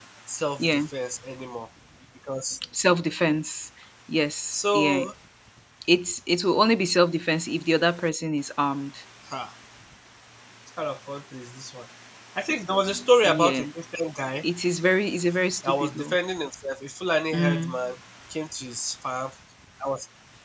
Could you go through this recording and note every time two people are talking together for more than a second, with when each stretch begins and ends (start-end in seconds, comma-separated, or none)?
none